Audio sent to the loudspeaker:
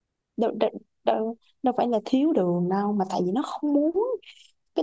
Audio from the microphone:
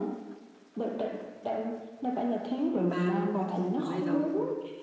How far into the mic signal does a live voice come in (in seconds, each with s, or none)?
2.7 s